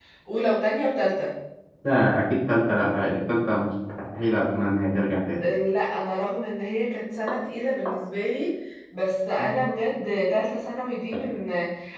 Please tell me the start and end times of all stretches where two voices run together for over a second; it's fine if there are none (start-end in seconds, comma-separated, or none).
none